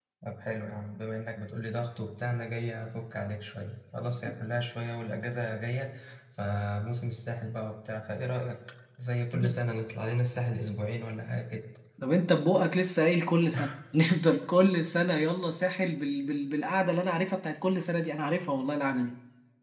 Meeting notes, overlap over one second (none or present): none